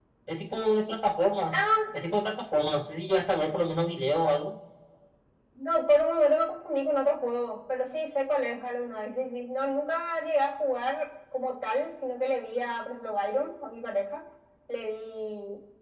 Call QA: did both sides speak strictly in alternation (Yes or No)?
Yes